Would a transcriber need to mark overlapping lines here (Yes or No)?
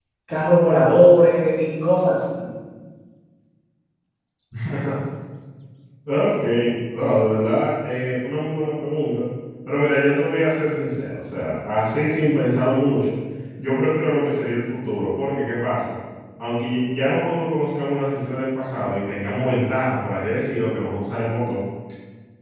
No